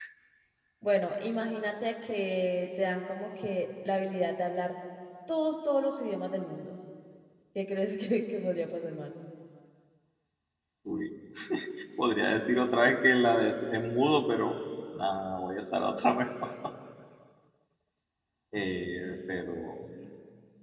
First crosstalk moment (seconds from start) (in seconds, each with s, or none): none